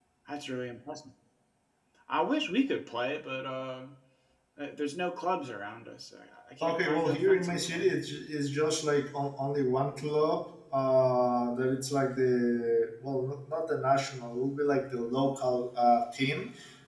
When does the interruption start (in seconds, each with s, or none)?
6.6 s